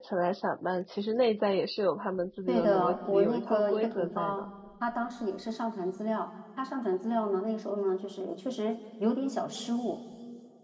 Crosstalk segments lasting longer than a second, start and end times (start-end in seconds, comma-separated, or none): 2.5-4.4